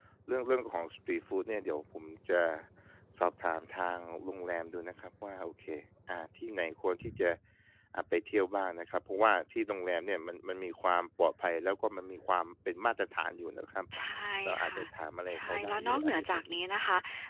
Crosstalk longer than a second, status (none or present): present